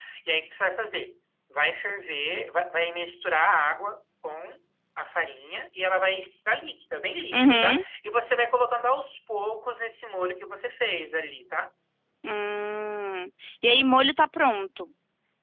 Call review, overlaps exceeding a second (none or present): none